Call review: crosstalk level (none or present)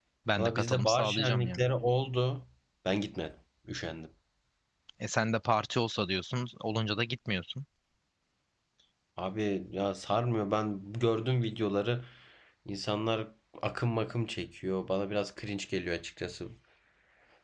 present